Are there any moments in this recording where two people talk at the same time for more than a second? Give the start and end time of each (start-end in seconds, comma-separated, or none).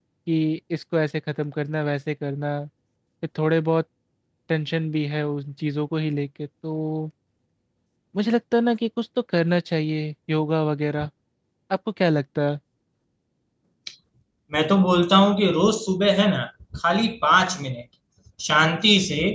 none